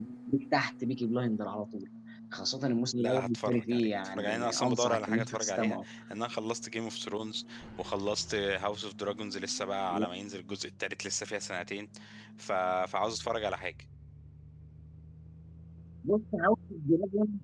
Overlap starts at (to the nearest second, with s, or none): 3 s